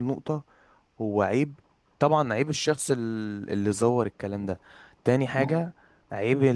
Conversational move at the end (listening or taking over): listening